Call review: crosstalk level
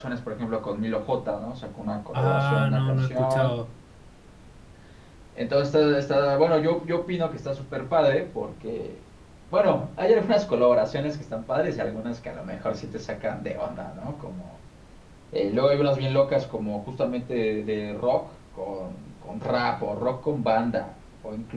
present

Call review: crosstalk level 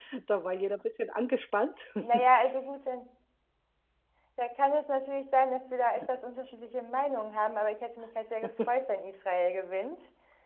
none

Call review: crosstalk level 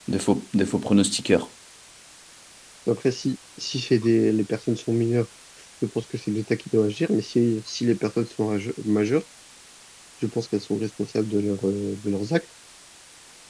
none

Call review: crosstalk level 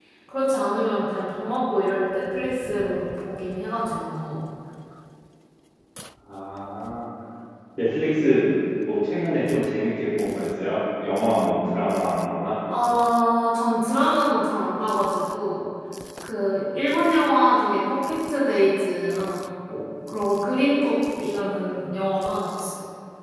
none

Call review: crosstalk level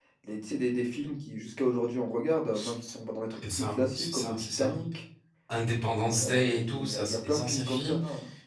present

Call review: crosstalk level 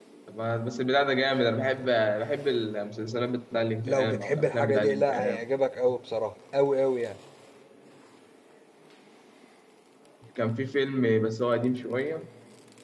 present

